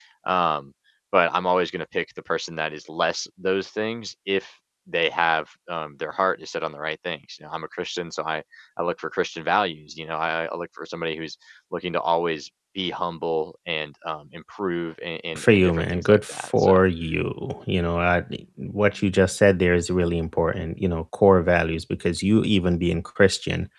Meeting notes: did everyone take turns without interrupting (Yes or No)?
No